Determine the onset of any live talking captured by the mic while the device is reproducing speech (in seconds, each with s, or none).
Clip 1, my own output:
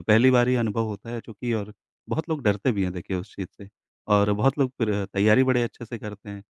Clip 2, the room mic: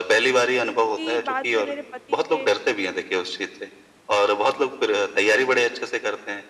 0.9 s